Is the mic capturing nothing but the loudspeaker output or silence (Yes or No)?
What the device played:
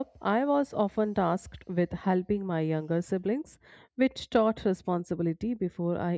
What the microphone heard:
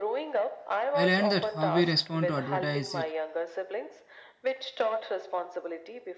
No